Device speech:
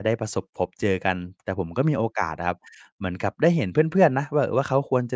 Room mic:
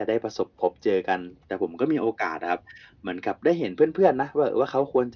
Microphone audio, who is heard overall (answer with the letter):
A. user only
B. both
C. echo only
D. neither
C